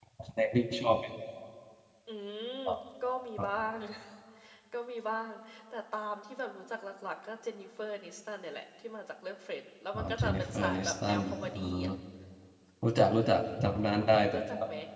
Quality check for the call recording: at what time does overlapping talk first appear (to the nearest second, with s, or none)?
10 s